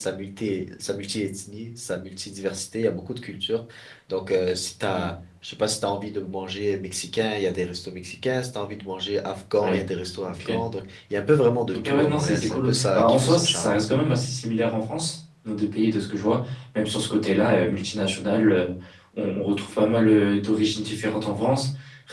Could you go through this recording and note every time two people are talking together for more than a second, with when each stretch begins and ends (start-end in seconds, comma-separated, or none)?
11.7-13.7